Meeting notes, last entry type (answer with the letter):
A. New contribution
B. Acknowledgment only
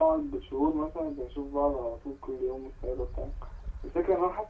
B